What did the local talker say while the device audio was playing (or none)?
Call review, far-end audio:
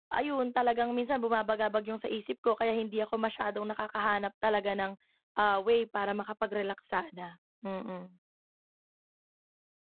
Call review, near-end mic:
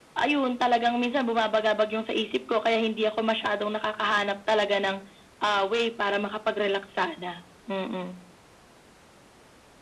none